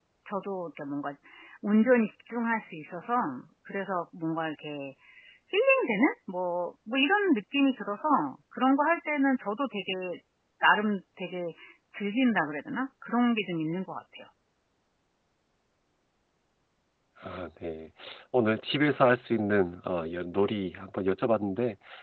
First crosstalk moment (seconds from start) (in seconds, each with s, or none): none